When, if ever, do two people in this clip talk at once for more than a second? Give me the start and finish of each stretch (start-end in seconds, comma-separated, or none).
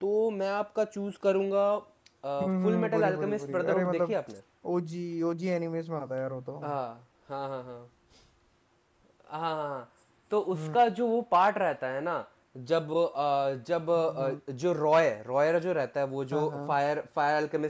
2.4-4.2